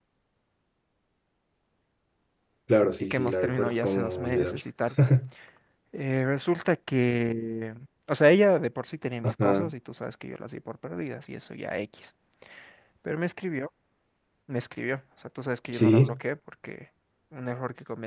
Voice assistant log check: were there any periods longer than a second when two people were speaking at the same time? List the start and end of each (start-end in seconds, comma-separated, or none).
3.0-4.6